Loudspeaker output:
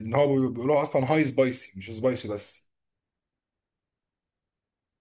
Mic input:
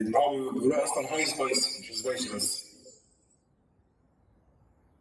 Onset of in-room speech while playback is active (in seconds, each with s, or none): none